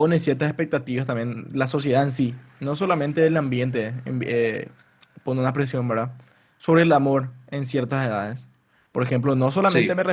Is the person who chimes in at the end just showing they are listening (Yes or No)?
Yes